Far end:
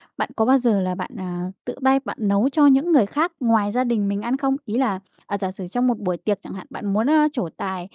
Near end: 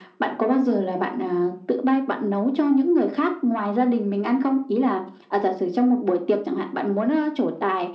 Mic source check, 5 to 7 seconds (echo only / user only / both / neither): echo only